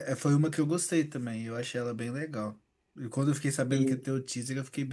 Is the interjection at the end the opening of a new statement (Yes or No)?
No